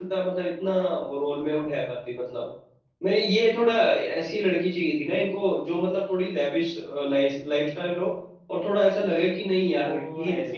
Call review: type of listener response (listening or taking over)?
taking over